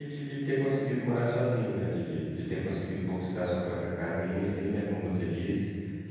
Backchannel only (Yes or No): Yes